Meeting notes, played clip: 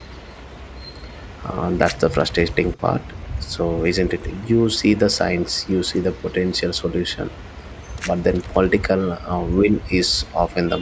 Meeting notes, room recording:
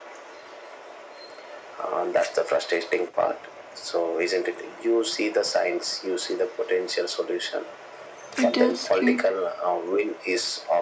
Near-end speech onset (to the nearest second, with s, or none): 8 s